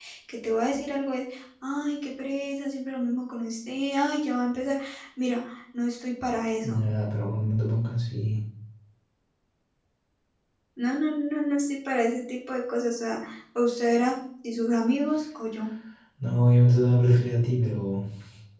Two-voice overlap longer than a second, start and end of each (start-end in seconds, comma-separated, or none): none